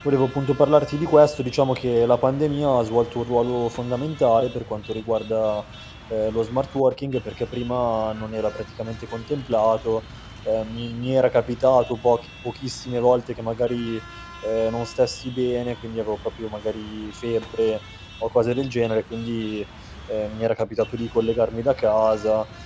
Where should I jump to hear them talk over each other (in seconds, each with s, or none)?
none